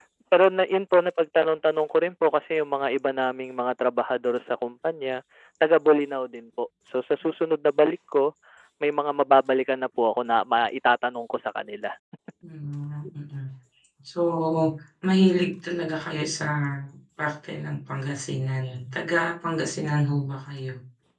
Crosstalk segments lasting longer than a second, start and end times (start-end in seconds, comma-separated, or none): none